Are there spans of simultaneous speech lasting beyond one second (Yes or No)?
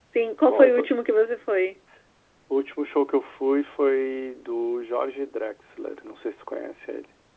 No